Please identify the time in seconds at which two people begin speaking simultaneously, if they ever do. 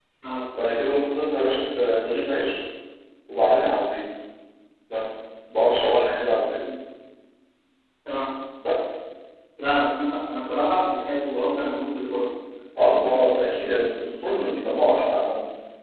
none

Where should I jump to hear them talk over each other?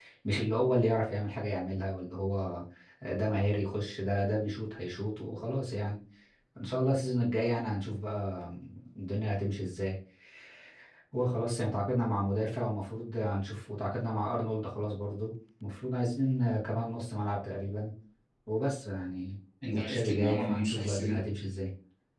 19.6 s

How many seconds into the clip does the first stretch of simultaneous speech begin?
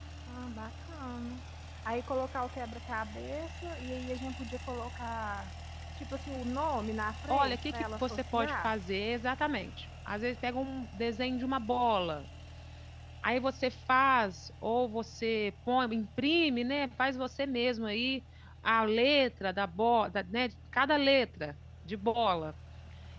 7.3 s

